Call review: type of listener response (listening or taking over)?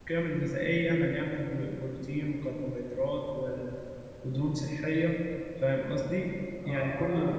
taking over